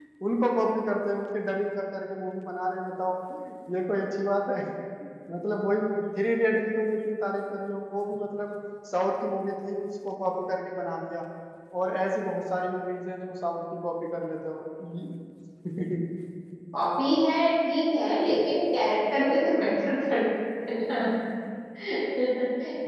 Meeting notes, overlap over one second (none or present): none